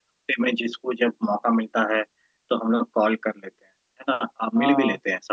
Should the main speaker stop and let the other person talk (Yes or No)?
No